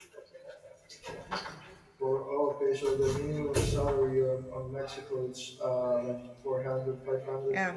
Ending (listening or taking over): taking over